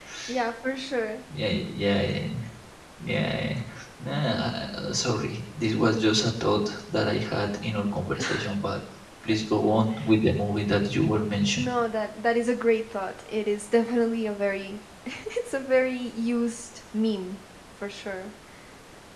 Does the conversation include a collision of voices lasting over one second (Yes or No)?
No